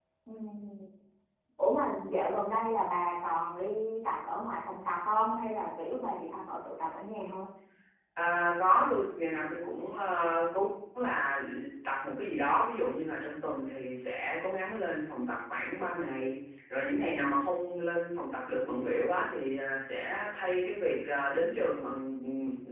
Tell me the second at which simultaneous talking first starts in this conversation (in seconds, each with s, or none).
none